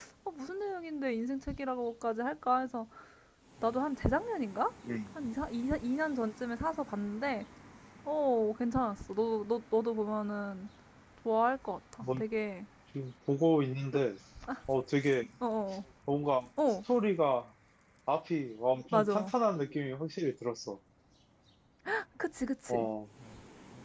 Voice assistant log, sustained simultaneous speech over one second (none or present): none